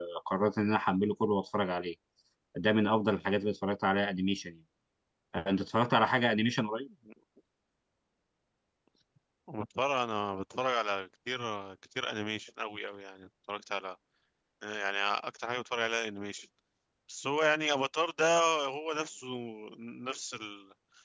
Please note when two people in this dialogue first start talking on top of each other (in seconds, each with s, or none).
none